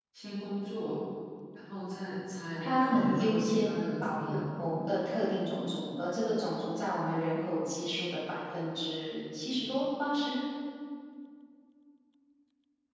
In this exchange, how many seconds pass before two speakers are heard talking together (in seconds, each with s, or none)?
2.6 s